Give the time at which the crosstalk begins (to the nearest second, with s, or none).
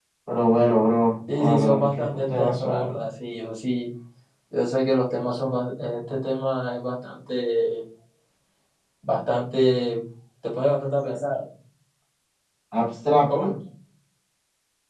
1 s